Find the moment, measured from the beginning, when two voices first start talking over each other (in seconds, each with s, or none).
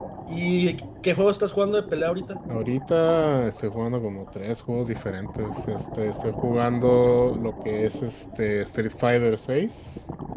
none